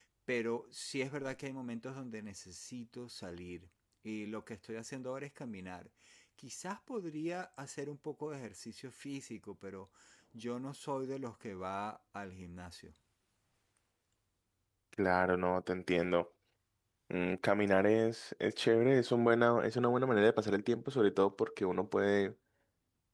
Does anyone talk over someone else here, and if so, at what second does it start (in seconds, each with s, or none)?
none